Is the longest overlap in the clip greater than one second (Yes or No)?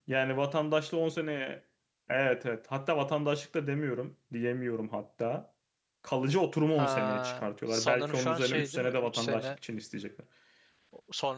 Yes